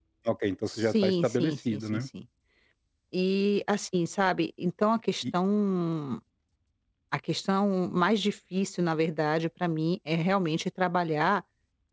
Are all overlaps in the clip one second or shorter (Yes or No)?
No